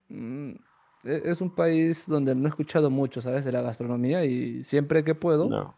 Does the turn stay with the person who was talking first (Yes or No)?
Yes